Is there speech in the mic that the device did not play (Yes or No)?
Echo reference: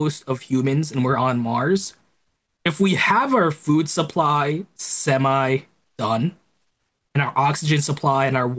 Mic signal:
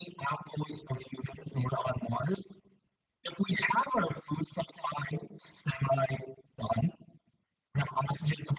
No